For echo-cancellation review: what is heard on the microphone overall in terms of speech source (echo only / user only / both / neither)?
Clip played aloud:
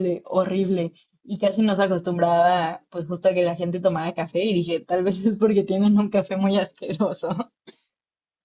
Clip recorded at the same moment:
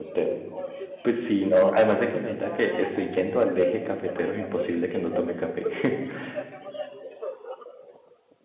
both